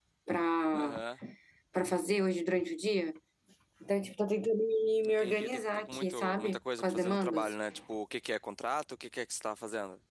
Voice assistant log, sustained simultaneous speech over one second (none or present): present